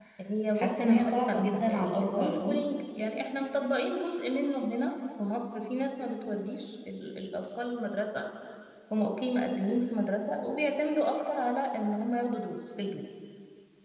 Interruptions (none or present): present